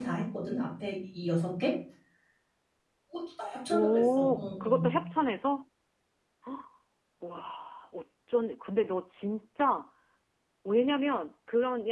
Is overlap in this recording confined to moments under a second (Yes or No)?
No